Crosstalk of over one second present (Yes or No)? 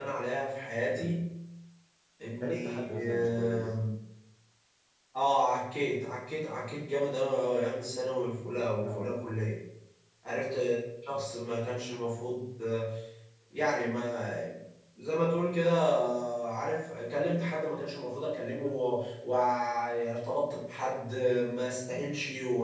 Yes